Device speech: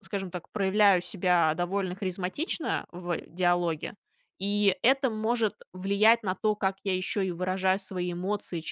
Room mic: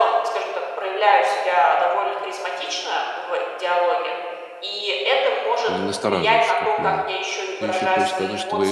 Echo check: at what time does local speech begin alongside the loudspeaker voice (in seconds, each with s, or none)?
5.7 s